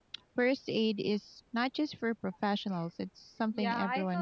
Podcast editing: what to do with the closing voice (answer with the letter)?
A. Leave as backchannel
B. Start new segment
B